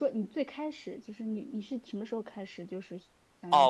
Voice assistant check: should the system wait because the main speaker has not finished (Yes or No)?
No